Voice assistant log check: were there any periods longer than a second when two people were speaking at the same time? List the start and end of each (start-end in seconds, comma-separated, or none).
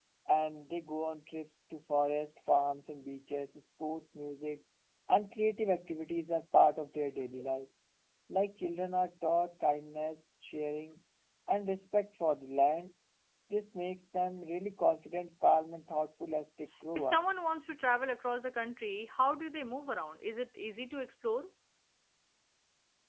none